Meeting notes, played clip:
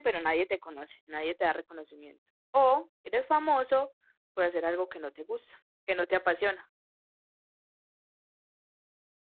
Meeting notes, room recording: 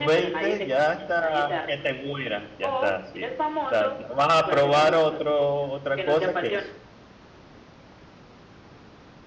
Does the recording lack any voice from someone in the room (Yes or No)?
No